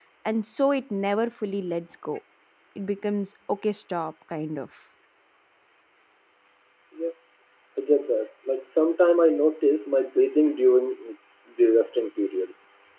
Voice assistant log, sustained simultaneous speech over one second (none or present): none